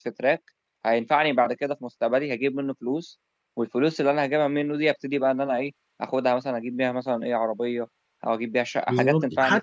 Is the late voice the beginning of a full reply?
Yes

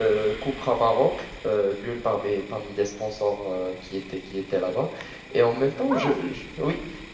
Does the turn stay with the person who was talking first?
Yes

